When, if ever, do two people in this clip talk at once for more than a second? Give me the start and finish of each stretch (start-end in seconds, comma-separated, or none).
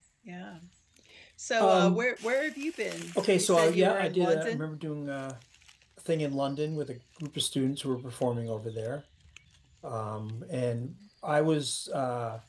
3.4-4.7